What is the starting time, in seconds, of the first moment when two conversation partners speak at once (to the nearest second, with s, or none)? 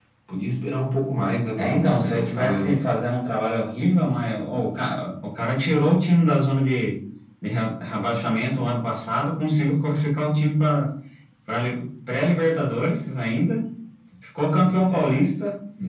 2 s